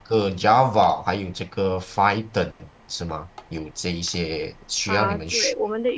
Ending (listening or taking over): taking over